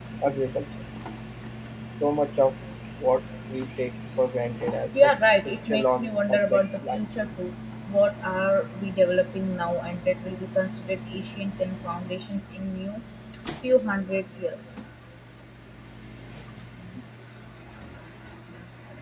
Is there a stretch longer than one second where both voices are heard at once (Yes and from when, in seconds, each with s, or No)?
Yes, from 4.9 s